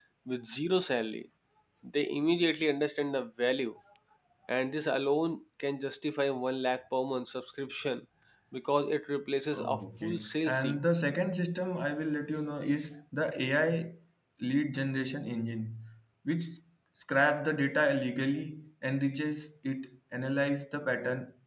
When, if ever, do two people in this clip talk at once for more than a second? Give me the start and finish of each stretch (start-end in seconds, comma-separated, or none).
9.5-10.8